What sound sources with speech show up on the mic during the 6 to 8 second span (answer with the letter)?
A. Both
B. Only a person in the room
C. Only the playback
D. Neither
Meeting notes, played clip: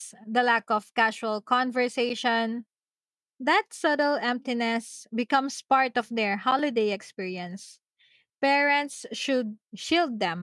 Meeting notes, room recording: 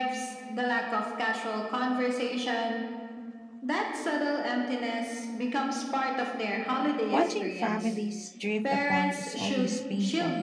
A